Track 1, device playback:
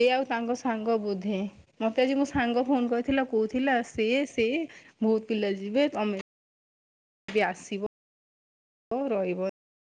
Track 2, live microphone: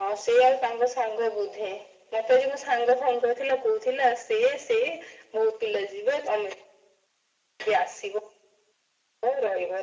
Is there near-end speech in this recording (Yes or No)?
No